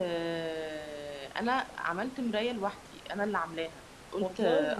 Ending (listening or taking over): listening